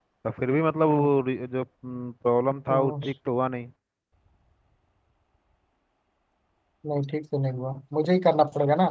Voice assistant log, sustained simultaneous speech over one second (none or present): none